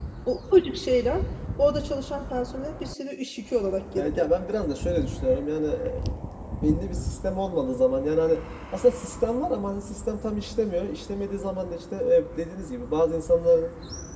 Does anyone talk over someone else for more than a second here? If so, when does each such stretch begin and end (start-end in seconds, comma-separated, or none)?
none